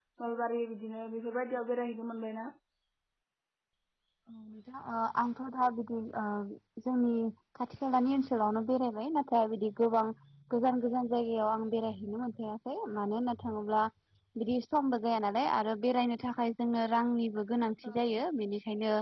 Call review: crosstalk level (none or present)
none